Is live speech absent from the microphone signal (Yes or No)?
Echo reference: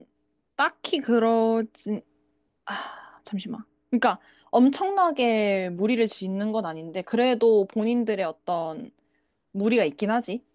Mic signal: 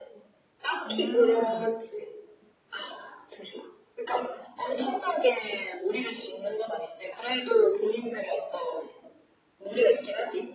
No